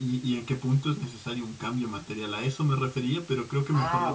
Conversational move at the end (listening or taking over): taking over